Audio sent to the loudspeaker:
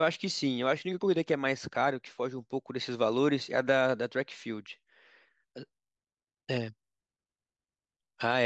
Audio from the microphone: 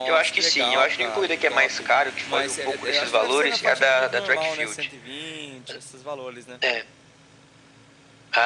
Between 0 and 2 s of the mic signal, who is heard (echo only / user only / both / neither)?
both